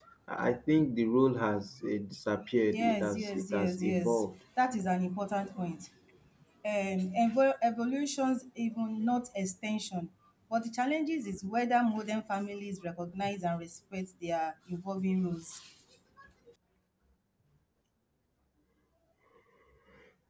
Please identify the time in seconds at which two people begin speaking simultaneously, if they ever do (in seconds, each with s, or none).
2.7 s